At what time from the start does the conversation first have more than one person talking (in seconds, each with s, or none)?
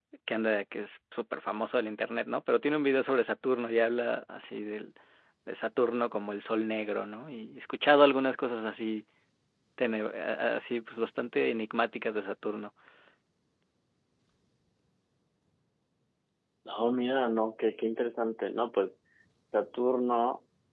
none